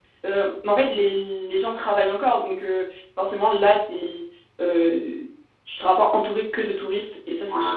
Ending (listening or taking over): taking over